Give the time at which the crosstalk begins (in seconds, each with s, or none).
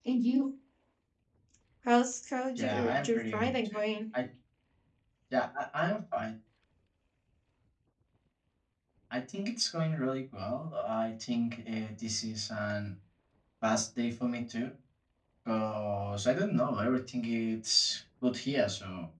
2.6 s